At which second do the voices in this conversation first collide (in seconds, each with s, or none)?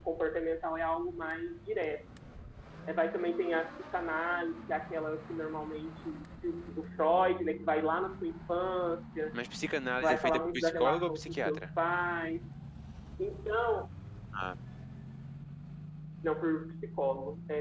10.0 s